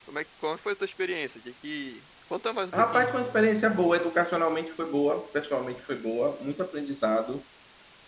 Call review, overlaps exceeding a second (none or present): none